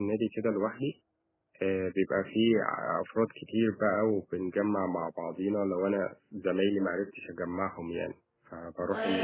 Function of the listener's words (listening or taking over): taking over